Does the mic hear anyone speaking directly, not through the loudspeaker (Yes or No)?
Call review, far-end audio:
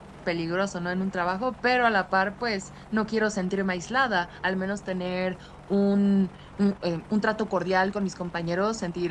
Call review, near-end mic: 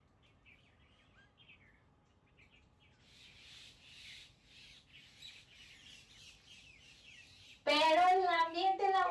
Yes